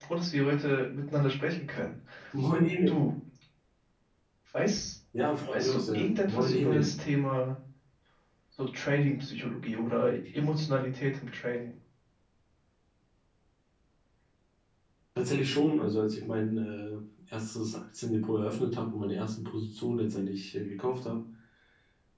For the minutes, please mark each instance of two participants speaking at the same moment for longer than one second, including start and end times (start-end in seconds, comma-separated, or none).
5.5-6.9